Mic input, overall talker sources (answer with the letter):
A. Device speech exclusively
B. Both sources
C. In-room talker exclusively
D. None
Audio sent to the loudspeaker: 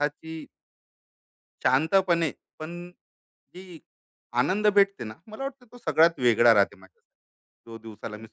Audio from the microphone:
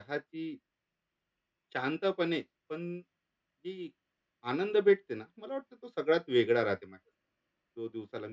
A